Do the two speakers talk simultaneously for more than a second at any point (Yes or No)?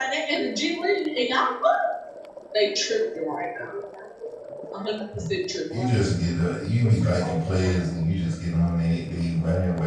No